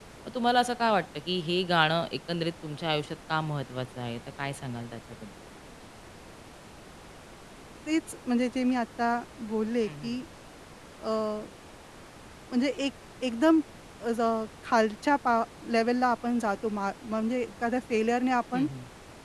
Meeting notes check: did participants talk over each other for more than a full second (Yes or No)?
No